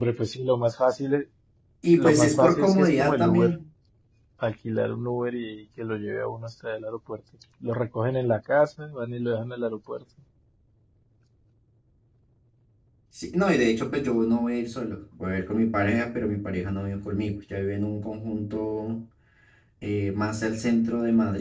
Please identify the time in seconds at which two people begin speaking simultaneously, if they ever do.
2.0 s

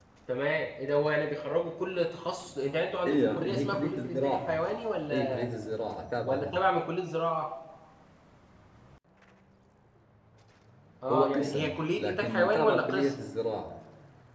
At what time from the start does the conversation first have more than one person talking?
3.1 s

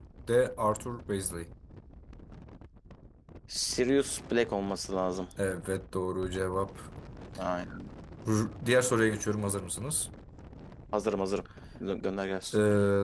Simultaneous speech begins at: none

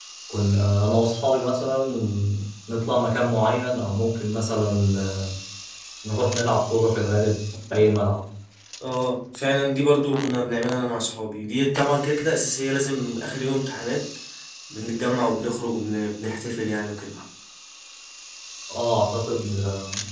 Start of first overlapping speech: none

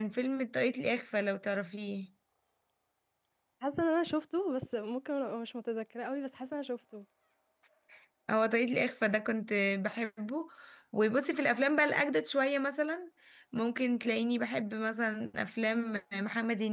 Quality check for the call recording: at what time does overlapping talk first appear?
none

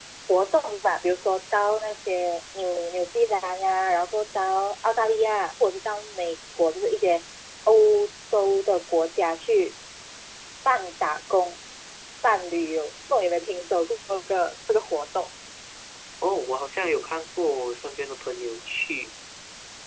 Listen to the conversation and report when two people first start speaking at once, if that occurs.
none

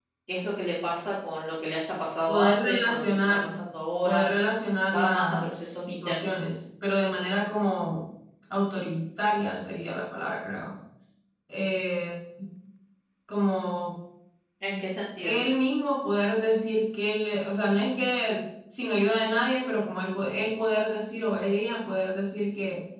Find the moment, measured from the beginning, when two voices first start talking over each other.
2.3 s

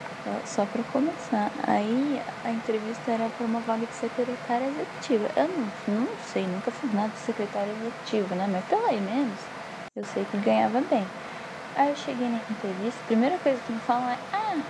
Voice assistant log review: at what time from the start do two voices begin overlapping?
none

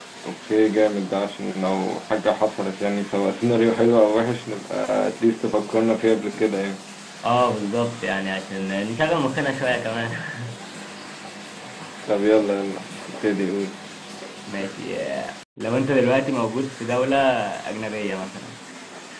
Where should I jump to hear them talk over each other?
none

